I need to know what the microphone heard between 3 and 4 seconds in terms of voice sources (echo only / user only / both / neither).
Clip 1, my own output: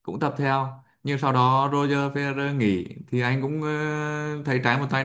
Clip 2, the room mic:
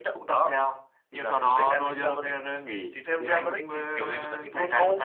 both